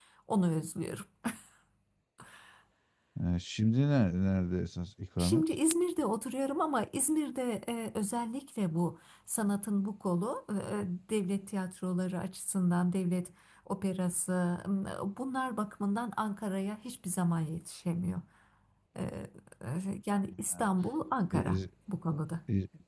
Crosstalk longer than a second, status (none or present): none